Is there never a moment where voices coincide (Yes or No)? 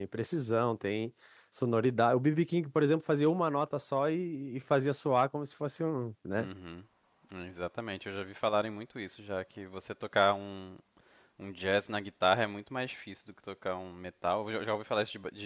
Yes